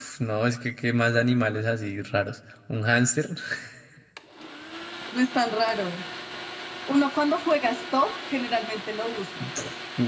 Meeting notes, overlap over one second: none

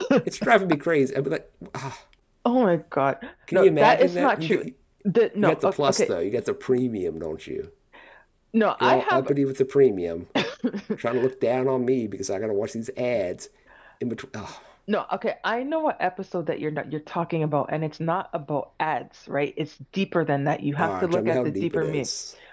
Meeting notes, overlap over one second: present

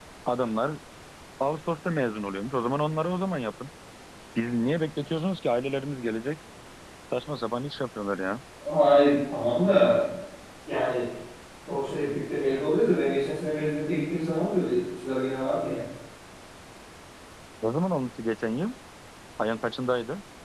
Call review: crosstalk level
none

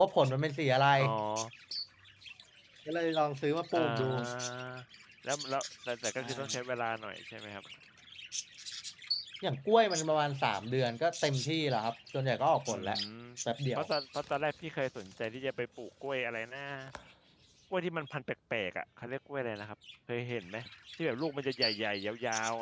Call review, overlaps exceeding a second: none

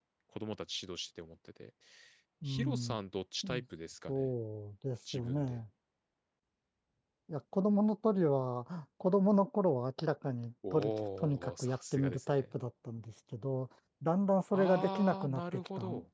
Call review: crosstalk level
present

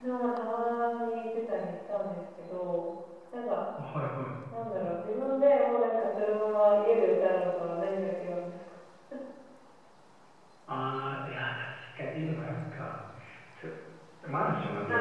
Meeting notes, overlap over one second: none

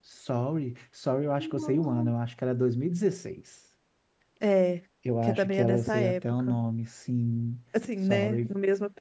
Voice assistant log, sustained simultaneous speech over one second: present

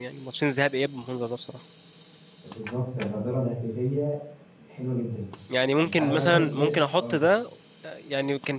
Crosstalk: present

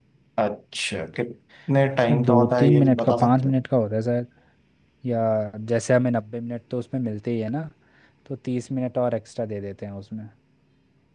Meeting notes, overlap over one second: present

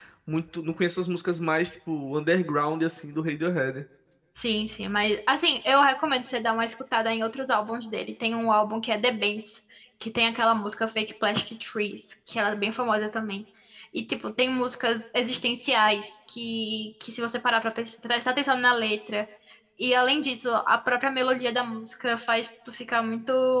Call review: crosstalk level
none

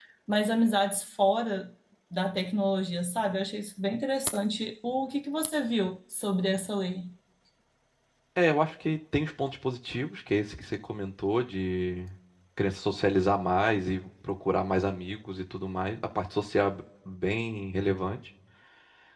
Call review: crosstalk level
none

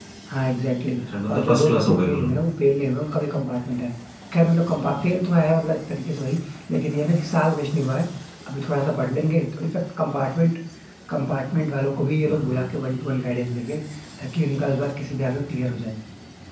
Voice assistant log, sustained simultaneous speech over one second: present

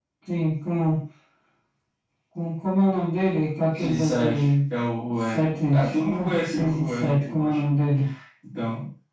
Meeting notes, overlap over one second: present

